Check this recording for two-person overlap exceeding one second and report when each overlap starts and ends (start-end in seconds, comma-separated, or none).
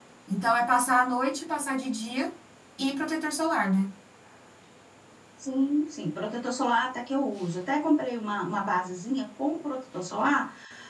none